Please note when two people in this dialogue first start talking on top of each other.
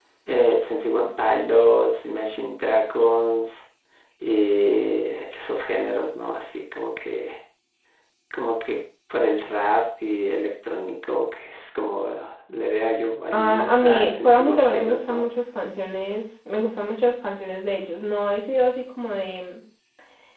13 s

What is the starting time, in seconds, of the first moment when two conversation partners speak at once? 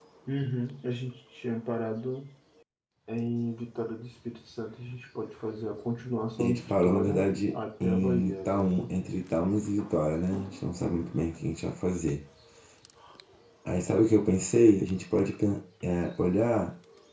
6 s

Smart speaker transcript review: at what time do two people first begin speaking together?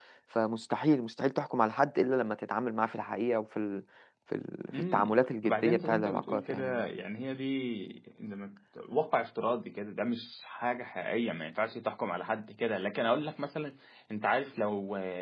5 s

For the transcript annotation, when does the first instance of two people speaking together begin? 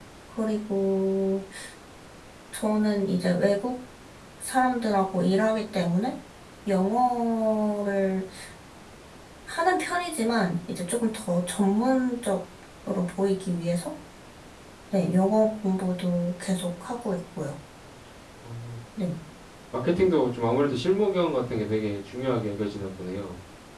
none

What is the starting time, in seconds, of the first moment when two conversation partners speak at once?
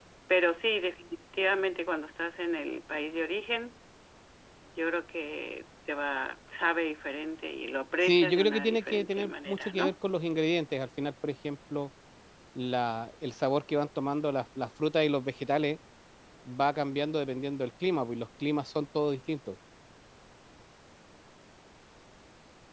8 s

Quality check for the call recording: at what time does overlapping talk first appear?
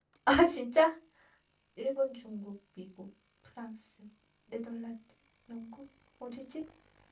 none

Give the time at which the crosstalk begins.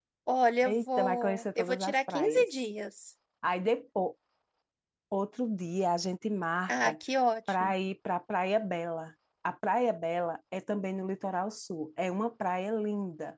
1 s

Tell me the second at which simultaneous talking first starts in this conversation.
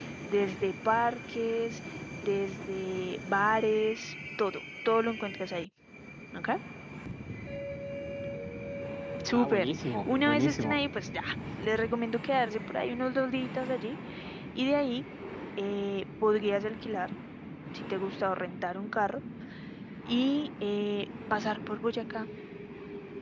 9 s

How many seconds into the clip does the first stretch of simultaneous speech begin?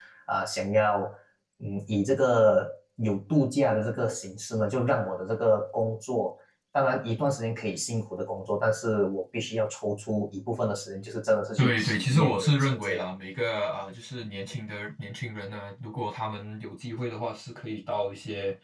12 s

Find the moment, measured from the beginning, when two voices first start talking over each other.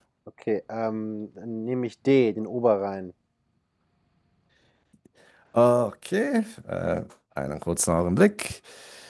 none

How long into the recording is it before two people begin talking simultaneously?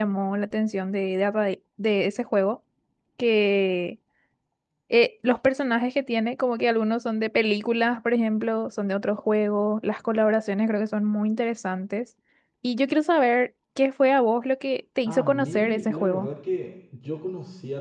15 s

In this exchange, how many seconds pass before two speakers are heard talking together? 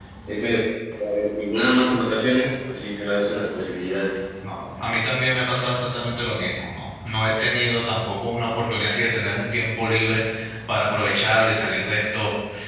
none

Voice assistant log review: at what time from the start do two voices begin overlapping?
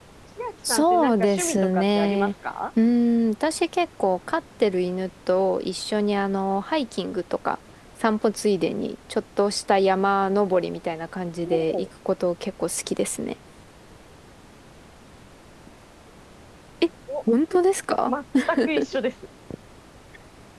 1 s

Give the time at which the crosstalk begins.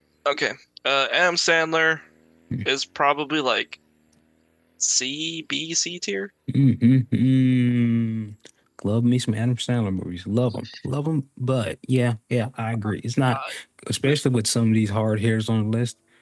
none

